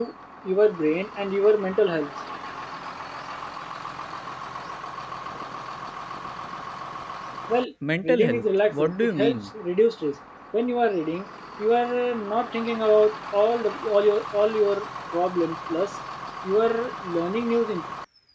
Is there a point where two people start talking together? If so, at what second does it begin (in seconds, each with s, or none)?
8.0 s